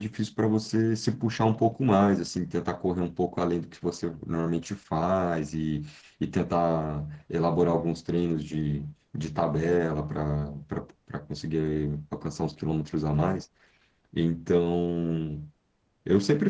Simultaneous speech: No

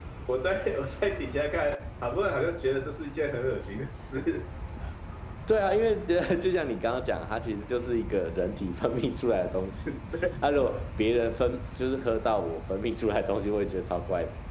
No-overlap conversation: Yes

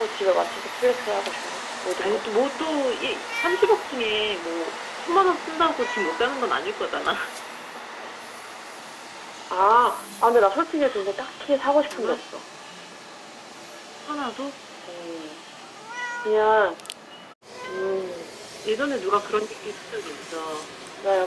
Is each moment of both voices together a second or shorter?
Yes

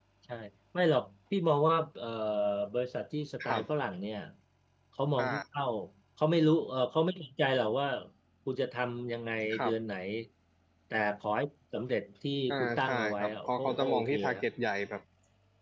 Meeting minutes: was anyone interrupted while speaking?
Yes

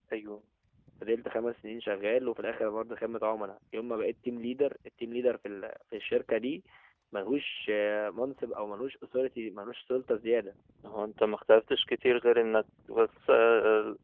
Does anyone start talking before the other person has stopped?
No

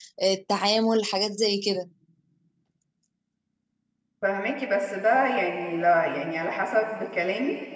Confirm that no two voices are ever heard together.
Yes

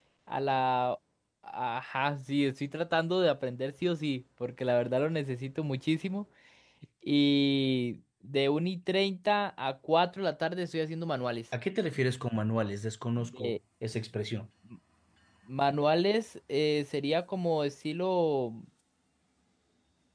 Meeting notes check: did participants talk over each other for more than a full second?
No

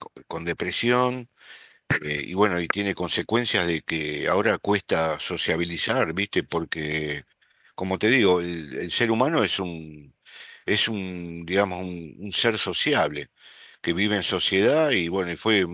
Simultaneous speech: No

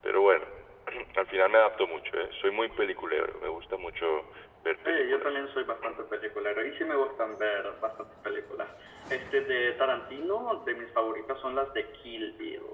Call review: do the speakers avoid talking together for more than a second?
Yes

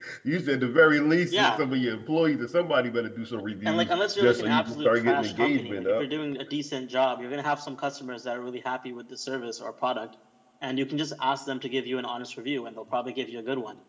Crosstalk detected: Yes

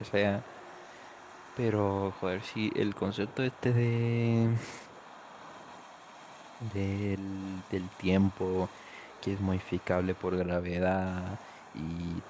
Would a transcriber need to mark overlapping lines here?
No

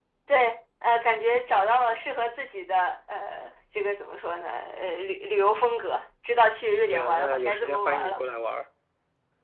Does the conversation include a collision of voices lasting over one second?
Yes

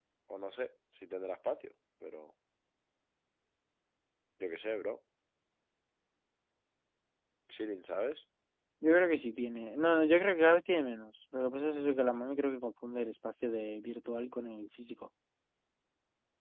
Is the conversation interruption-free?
Yes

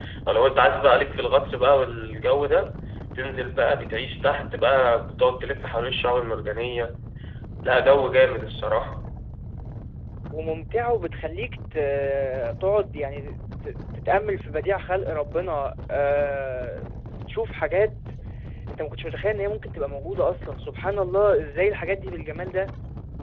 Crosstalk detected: No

